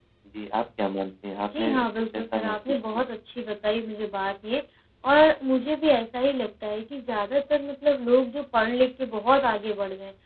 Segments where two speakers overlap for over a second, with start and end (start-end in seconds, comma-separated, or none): 1.4-3.1